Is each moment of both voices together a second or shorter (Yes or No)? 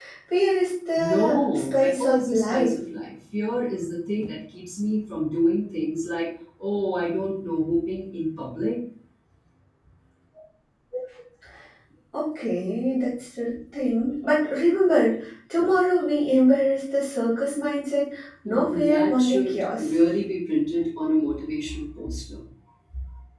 No